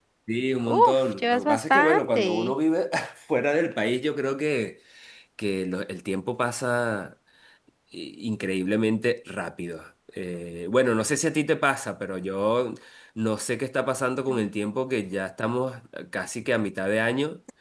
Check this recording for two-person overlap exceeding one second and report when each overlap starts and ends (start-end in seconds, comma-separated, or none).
0.8-2.3